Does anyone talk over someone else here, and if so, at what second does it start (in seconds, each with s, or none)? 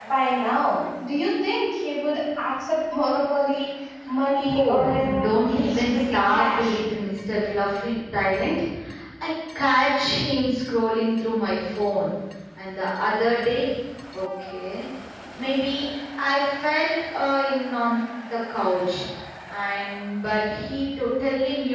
4.4 s